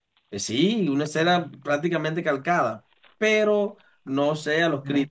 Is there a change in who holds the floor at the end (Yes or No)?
No